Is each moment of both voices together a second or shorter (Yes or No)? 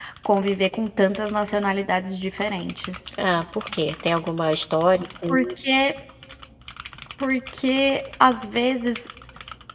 Yes